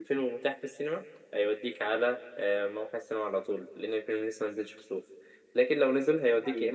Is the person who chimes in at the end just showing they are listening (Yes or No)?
Yes